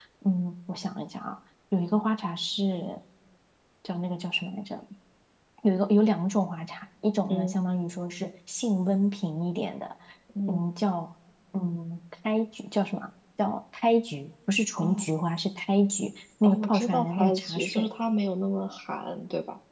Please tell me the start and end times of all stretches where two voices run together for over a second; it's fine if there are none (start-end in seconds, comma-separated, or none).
16.4-17.9